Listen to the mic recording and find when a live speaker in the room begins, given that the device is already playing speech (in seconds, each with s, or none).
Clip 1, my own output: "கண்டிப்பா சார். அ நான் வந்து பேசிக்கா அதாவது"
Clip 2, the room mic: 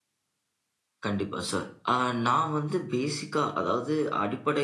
none